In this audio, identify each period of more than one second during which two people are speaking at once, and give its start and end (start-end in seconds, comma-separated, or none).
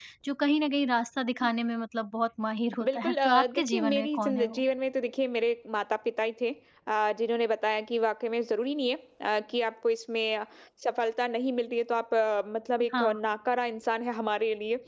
2.8-4.6